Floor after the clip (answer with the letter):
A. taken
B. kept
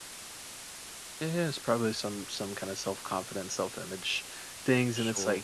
B